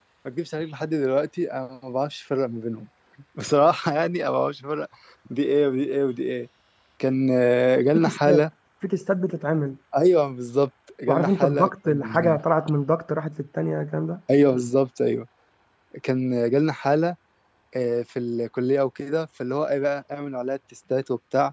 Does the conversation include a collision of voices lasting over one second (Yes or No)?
Yes